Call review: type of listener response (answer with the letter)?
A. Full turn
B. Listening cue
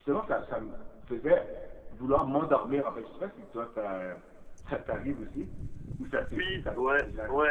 A